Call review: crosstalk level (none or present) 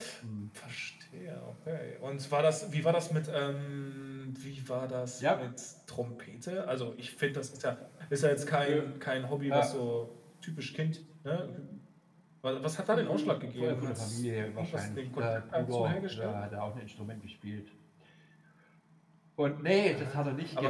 present